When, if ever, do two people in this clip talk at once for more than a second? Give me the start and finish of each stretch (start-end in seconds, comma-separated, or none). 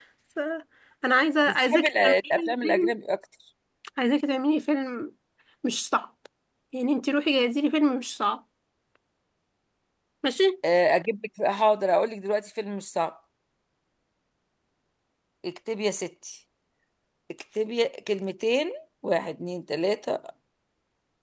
1.5-2.9